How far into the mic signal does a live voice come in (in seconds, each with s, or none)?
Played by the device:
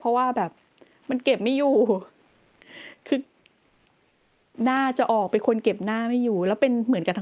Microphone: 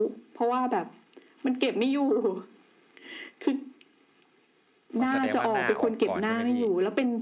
5.0 s